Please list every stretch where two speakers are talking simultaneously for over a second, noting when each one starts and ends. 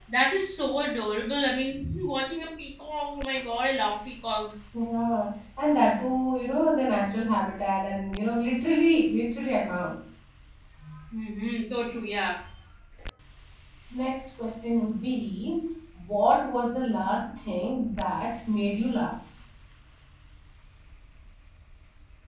none

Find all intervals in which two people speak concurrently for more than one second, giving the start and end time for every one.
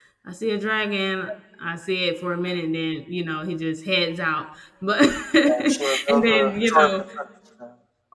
5.4-6.9

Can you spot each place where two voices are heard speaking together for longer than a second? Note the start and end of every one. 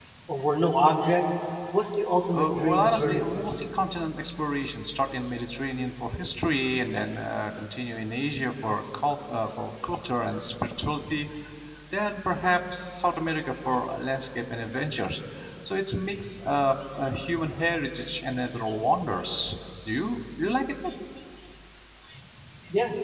2.3-3.6

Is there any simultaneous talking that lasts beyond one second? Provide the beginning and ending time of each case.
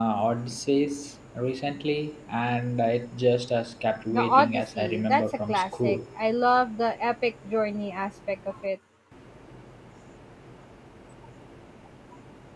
4.1-6.0

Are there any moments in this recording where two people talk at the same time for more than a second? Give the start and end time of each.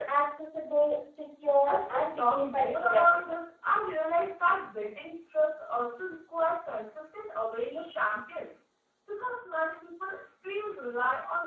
1.6-3.2

